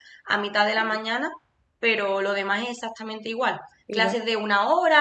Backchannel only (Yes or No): Yes